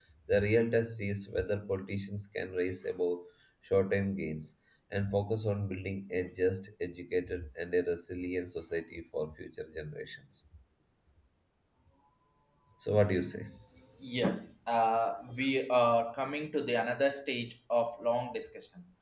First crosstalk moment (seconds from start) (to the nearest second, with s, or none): none